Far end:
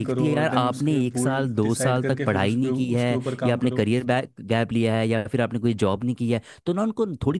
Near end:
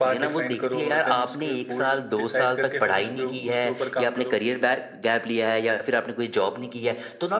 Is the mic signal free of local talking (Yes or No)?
Yes